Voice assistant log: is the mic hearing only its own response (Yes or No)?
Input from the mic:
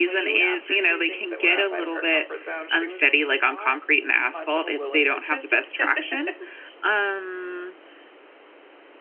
No